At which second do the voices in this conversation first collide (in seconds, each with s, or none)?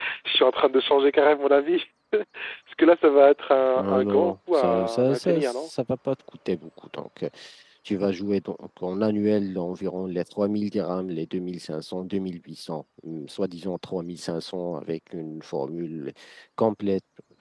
3.8 s